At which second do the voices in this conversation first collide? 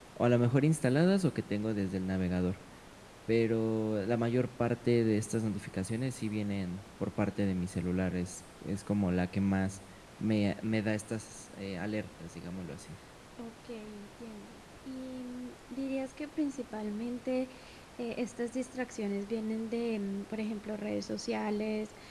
none

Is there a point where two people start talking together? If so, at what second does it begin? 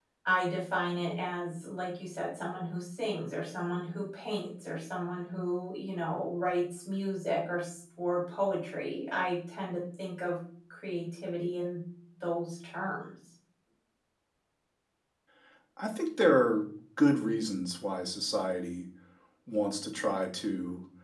none

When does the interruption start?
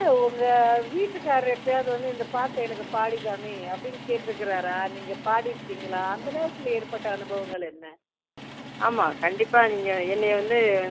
none

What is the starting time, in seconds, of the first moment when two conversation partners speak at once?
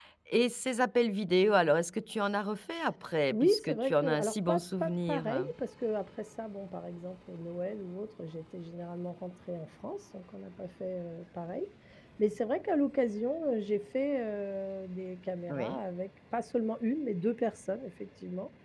3.3 s

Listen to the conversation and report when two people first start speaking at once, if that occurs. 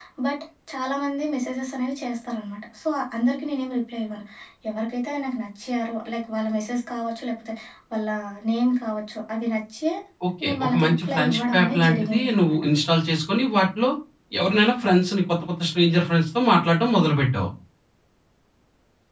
10.5 s

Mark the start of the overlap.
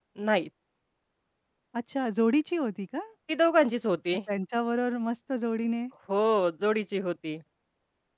none

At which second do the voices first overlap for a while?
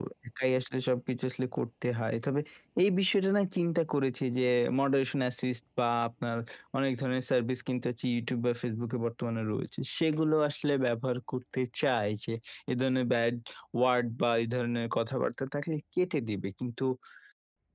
none

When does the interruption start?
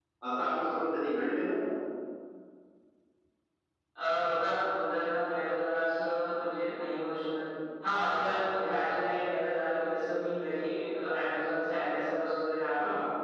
none

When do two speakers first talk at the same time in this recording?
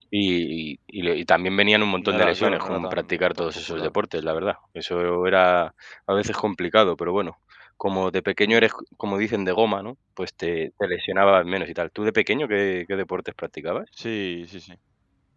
2.0 s

